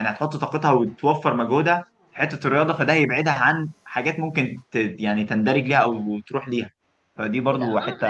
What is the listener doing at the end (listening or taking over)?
taking over